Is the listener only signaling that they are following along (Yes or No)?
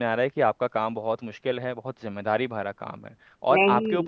Yes